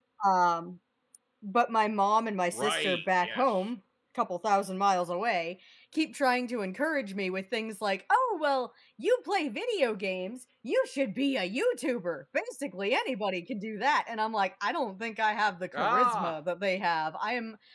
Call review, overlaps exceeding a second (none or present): present